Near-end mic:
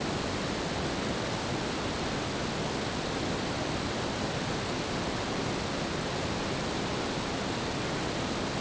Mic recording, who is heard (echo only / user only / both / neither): neither